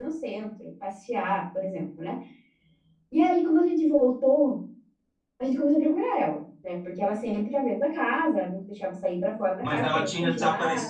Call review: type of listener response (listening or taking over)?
taking over